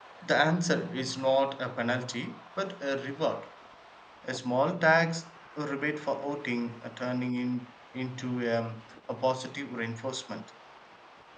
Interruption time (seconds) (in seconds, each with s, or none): none